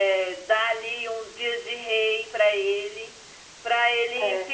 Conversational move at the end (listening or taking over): listening